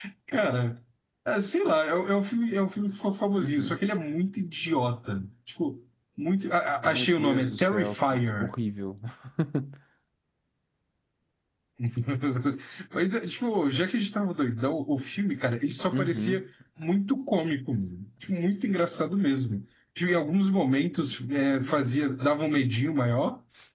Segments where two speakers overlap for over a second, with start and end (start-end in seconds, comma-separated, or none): 6.8-8.5